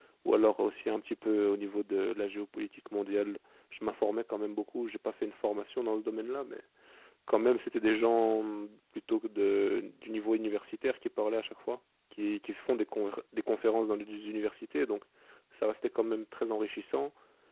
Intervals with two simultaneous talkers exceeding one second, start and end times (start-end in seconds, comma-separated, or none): none